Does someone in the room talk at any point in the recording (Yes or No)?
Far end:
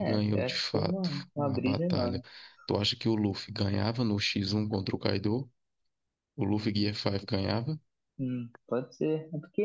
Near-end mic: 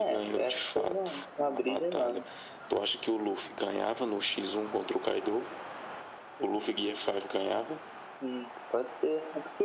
No